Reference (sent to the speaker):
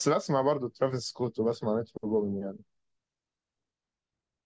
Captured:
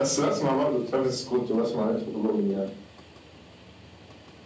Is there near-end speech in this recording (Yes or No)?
No